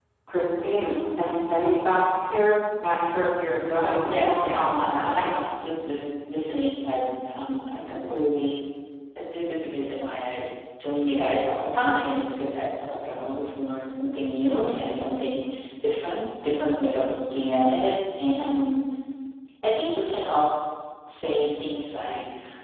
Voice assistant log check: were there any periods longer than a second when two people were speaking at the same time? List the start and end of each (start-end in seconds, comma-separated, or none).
3.8-5.4